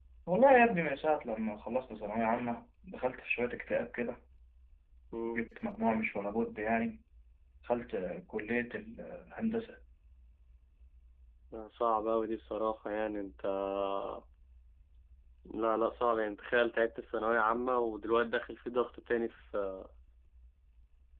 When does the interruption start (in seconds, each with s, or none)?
none